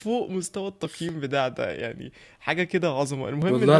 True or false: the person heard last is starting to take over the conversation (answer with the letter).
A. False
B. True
A